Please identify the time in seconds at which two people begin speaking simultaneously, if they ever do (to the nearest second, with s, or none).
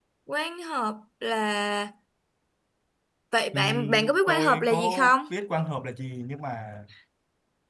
4 s